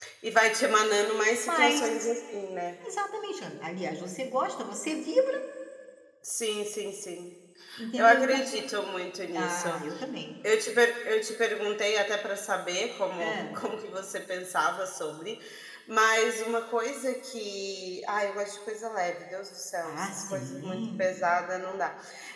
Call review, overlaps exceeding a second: present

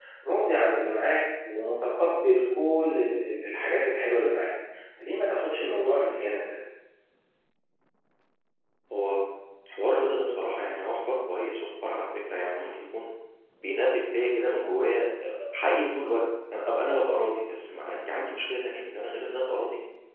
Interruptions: none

